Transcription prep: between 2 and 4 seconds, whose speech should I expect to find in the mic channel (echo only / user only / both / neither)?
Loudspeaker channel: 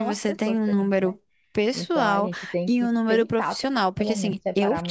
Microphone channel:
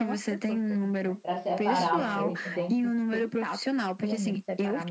both